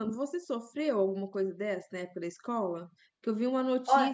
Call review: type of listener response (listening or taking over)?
listening